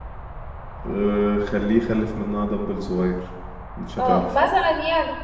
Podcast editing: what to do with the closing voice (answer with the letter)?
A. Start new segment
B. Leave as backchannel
A